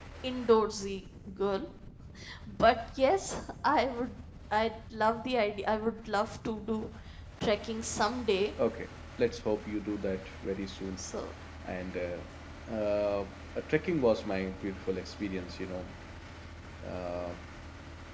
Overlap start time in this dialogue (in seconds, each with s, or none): none